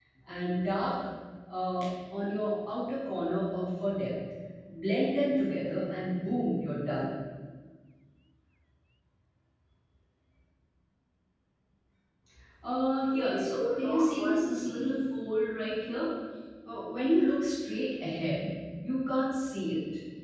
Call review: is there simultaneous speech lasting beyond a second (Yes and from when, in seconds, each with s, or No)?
Yes, from 13.1 s